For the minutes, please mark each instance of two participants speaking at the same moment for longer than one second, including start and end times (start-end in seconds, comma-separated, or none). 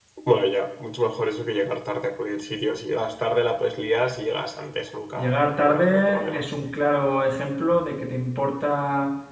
5.2-6.5